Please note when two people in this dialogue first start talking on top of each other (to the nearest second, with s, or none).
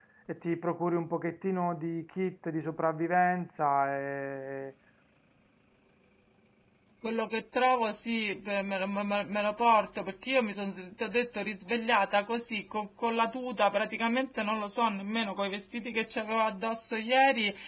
none